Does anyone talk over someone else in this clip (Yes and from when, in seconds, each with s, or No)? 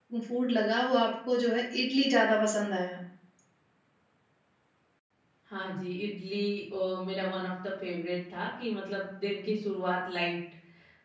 No